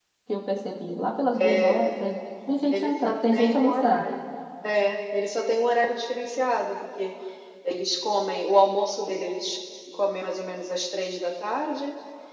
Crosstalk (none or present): present